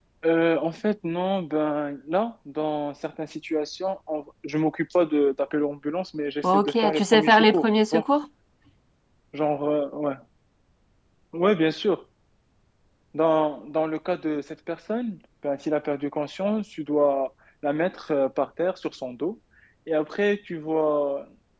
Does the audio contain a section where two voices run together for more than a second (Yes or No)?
Yes